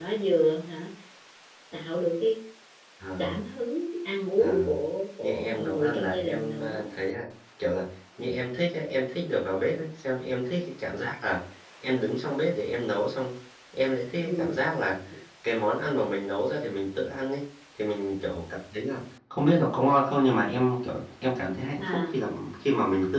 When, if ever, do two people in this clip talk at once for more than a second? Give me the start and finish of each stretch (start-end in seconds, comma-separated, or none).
5.2-6.8